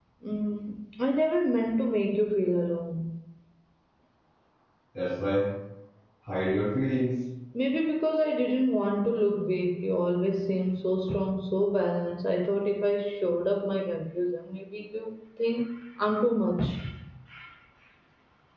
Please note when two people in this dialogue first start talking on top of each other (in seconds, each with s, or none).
none